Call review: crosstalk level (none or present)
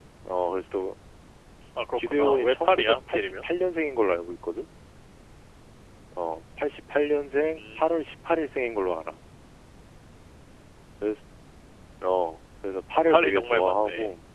present